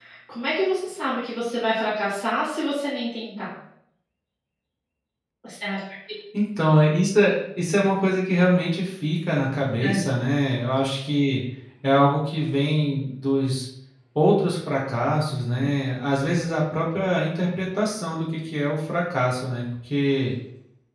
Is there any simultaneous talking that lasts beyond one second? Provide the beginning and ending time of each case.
none

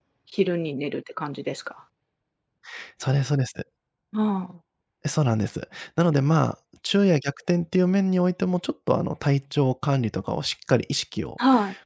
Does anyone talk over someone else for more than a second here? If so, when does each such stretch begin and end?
none

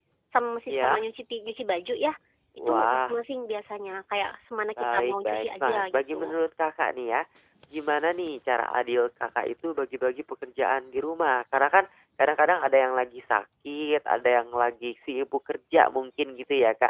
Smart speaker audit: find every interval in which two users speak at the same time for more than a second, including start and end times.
4.8-6.3

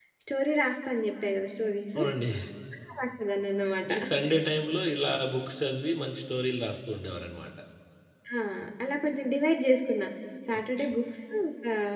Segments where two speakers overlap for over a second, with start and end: none

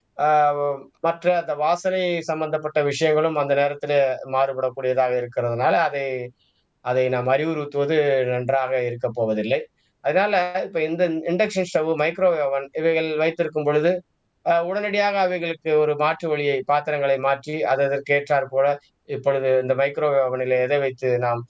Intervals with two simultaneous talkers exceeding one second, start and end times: none

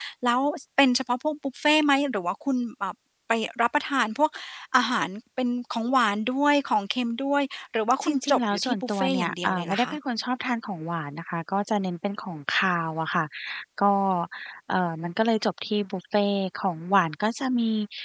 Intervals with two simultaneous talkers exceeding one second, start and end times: 8.0-9.9

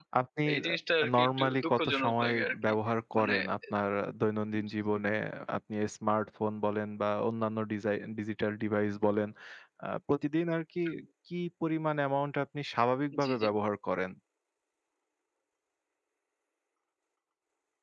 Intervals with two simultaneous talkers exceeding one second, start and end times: 1.0-2.5

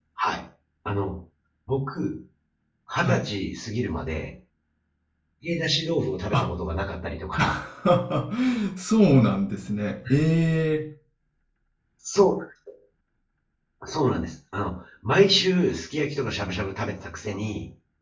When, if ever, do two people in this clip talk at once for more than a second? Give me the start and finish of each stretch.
none

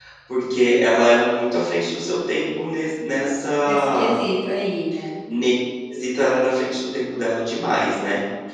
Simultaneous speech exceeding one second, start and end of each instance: none

